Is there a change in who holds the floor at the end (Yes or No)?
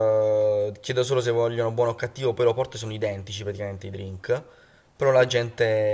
No